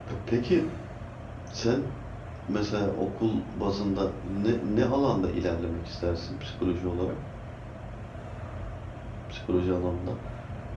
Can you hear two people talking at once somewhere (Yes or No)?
No